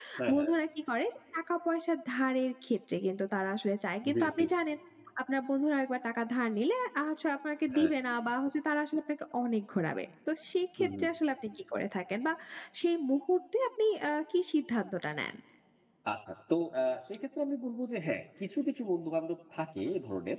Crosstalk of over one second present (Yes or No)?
No